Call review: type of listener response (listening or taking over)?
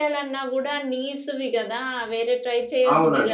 taking over